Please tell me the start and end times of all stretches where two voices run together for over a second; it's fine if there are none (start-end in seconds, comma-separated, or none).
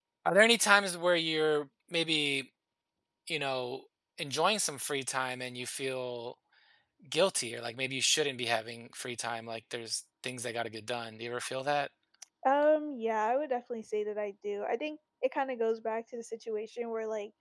none